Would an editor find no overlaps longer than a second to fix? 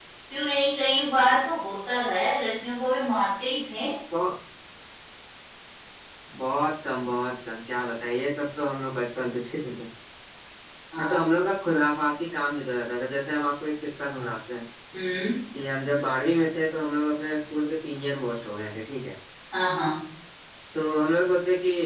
Yes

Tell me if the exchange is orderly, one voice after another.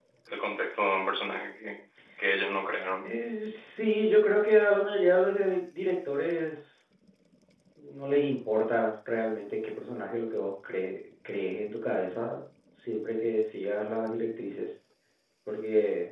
Yes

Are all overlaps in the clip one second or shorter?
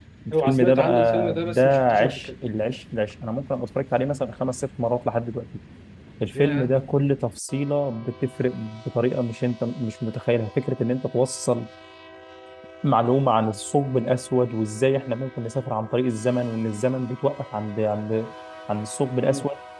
No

